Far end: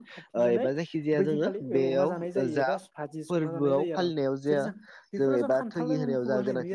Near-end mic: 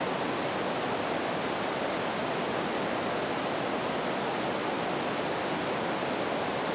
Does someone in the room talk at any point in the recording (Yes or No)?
No